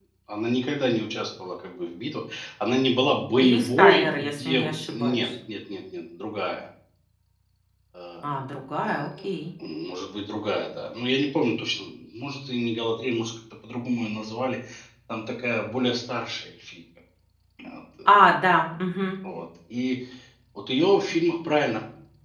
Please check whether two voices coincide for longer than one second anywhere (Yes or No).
Yes